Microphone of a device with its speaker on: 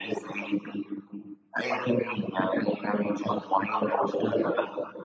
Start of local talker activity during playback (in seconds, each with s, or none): none